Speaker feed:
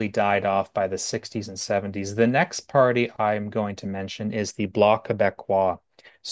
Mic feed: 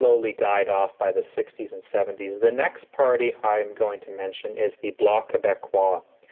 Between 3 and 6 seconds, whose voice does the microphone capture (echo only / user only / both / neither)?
echo only